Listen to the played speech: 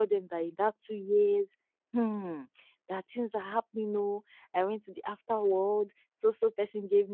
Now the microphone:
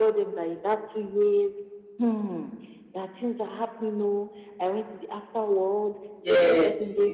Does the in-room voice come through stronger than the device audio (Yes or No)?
Yes